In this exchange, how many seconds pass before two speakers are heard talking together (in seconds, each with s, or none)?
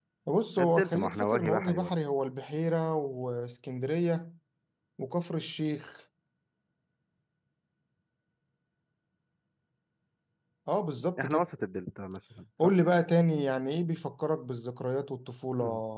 0.6 s